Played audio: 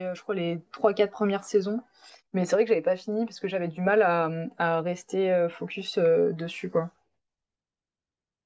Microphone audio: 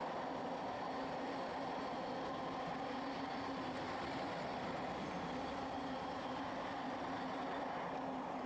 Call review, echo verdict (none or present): none